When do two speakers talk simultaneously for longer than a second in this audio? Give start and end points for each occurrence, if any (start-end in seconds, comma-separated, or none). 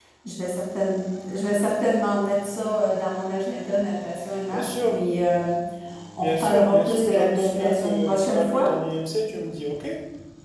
6.2-8.7